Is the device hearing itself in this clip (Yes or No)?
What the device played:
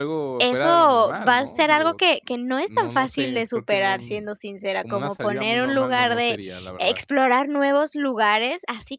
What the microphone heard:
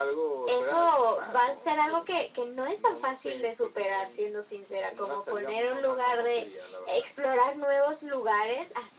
Yes